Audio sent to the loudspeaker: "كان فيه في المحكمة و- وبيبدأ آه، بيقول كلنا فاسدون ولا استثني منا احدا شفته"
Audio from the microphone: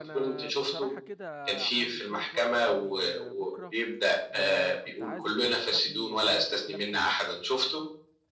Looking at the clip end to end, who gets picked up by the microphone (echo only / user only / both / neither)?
both